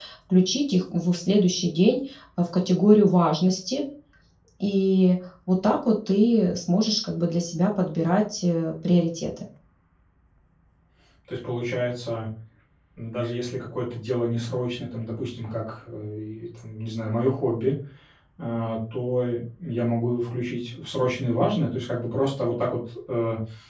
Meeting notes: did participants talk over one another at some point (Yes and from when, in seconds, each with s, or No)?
No